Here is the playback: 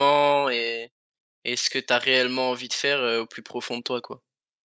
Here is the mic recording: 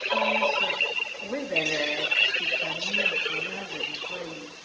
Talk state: both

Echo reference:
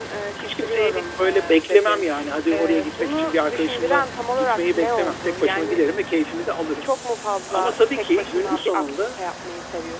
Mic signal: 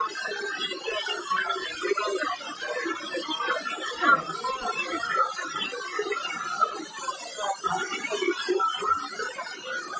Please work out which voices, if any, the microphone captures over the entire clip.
both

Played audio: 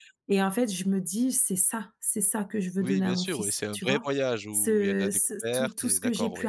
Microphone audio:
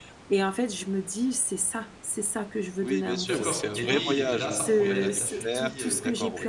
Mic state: both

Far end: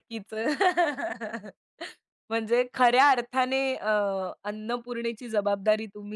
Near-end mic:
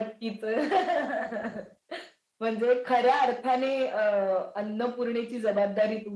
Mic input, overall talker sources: echo only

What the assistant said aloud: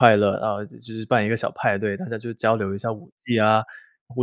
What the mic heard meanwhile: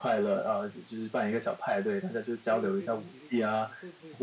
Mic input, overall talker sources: both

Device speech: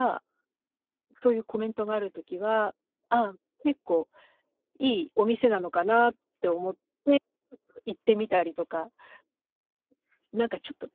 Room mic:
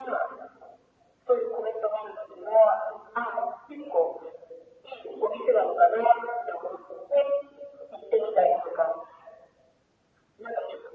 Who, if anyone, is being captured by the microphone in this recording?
echo only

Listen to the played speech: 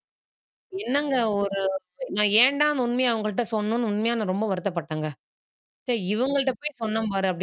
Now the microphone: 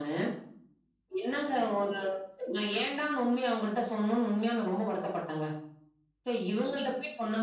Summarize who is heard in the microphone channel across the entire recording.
echo only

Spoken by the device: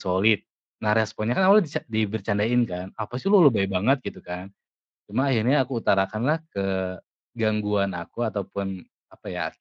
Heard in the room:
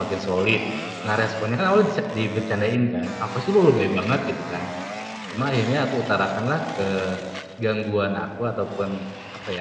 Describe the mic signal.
echo only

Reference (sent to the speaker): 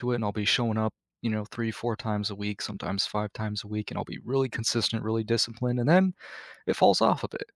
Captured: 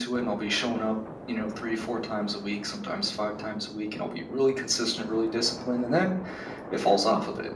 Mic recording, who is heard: echo only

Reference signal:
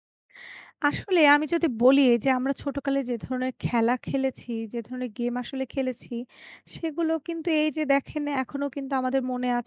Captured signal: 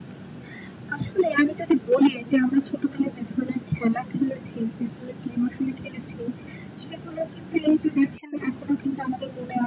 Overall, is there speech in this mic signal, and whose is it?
echo only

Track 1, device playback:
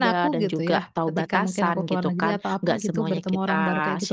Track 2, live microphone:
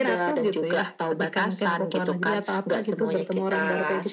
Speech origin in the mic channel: echo only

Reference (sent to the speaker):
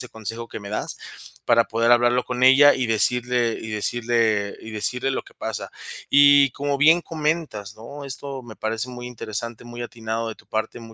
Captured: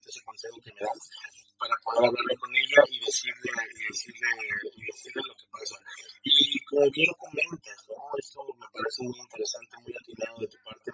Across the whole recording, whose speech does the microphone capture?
echo only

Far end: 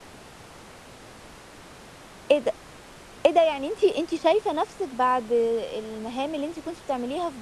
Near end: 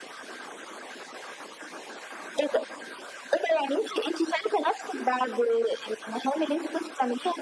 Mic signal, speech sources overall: echo only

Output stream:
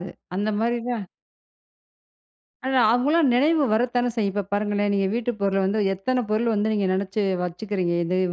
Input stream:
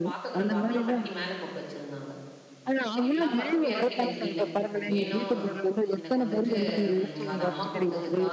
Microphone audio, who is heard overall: both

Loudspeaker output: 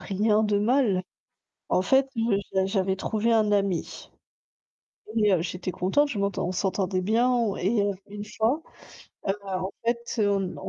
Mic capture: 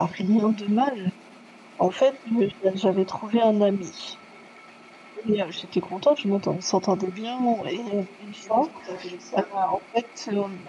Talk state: both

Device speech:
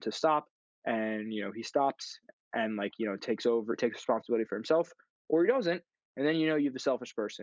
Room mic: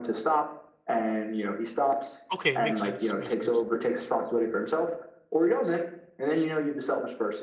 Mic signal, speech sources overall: both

